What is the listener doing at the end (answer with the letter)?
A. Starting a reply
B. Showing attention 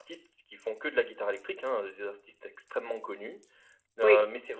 B